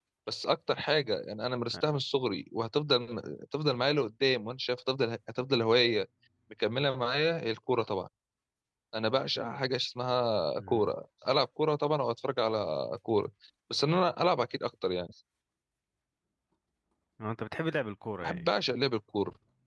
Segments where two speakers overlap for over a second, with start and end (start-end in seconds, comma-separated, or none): none